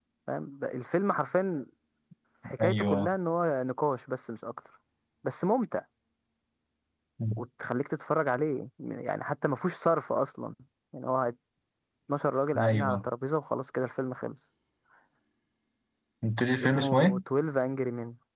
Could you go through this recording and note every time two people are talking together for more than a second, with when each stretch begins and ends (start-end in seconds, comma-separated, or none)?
none